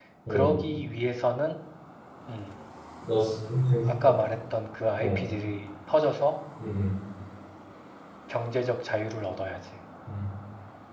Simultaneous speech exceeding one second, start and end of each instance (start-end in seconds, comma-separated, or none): none